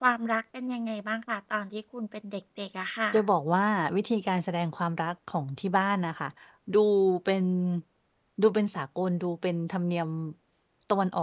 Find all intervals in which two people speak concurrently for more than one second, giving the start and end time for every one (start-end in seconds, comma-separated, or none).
none